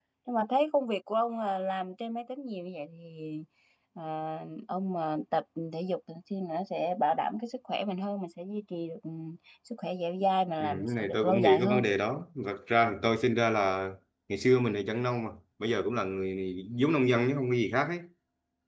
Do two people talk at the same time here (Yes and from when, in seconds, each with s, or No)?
Yes, from 10.6 s